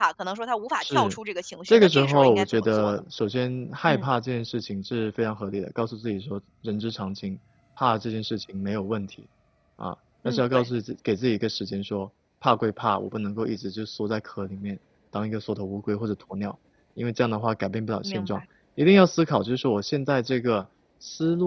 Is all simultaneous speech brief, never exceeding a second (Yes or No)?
No